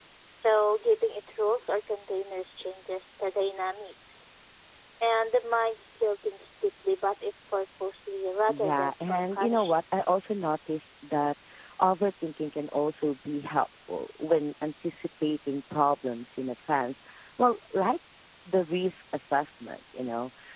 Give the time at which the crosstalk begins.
8.5 s

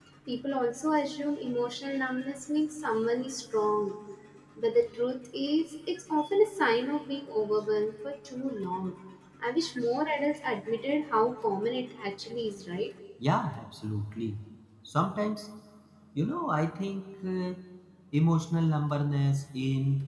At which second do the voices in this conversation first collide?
none

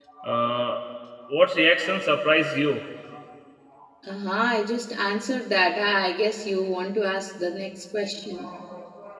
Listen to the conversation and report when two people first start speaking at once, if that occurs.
none

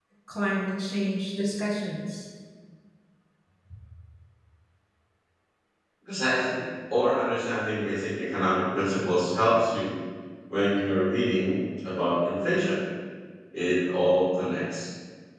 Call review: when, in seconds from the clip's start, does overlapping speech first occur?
none

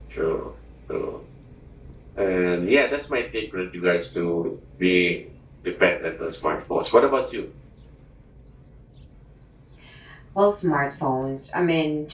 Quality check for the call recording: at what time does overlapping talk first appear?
none

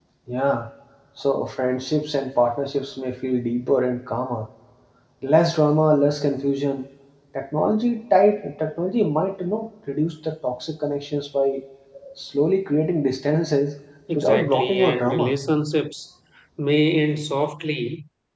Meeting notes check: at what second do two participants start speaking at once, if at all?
14.1 s

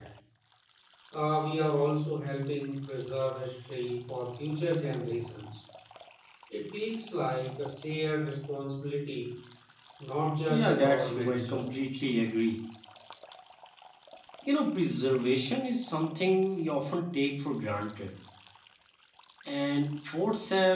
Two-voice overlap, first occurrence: 10.5 s

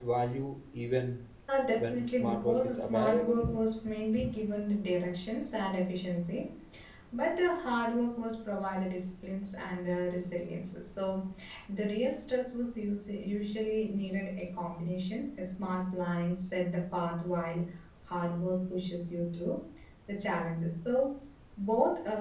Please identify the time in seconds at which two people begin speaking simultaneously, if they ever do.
1.8 s

